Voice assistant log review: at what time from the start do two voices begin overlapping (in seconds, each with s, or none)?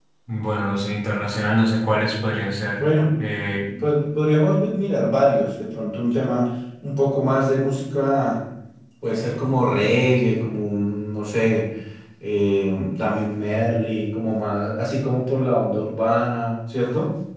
none